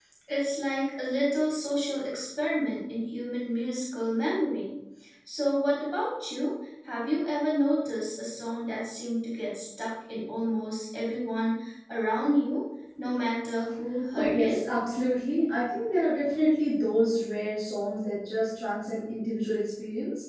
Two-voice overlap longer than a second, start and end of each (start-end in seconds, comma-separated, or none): none